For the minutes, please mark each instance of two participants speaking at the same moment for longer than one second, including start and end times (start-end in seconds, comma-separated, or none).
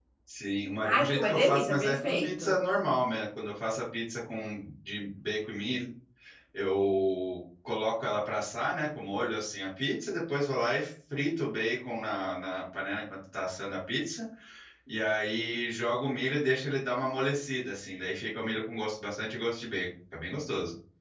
0.8-2.5